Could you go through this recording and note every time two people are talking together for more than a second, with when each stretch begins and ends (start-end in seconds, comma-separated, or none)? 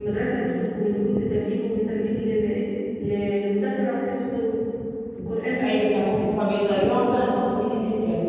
none